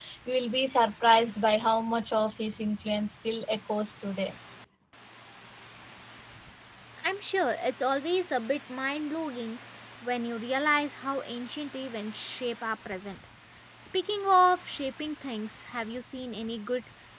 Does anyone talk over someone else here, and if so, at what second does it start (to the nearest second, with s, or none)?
none